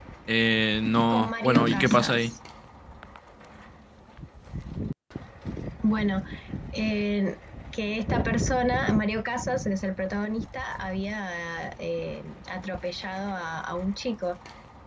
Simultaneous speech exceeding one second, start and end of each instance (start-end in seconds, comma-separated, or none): 0.9-2.3